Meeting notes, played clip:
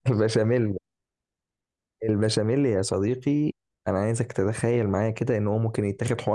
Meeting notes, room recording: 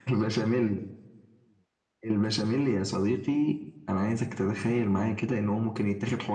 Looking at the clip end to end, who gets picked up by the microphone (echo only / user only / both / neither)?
echo only